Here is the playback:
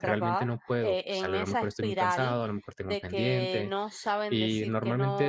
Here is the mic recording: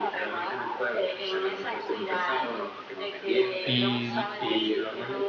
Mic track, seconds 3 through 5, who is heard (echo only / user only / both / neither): both